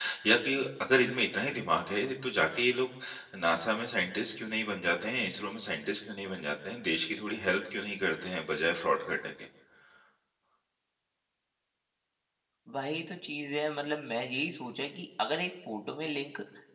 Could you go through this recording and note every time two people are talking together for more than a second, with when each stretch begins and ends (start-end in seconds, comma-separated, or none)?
none